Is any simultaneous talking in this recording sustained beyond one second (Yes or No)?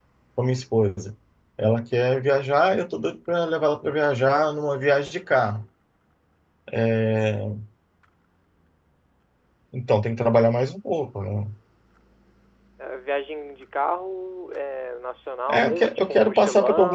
Yes